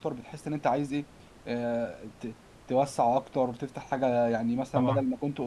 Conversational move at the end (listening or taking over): listening